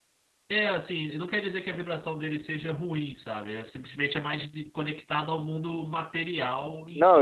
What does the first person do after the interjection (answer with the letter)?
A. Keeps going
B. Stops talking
B